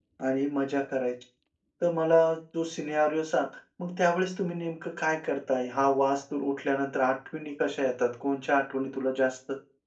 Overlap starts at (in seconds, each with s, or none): none